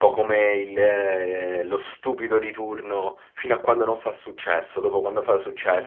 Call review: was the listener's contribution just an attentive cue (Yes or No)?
No